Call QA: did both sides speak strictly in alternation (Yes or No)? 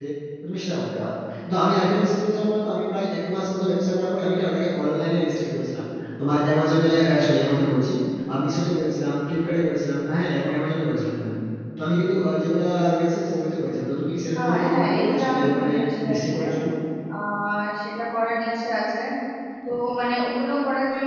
No